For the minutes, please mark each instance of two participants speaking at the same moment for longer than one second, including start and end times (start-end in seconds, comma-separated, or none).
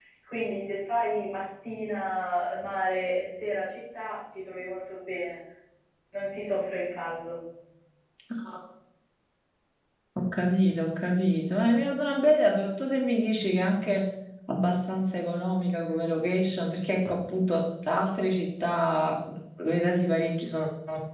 none